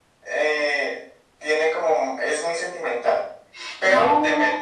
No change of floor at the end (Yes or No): Yes